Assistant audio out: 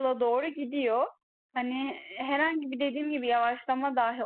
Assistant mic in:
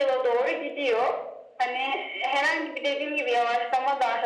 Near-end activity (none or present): none